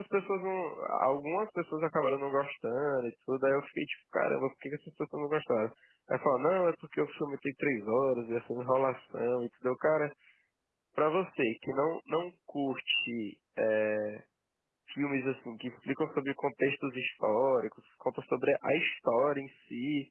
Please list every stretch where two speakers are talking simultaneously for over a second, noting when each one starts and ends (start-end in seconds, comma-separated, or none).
none